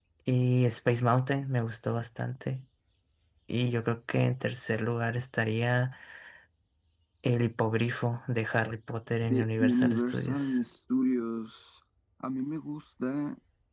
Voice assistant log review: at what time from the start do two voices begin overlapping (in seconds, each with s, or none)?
9.3 s